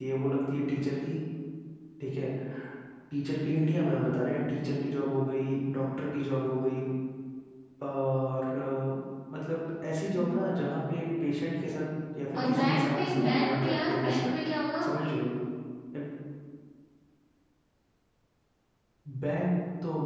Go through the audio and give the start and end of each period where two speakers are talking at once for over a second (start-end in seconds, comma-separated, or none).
12.4-14.3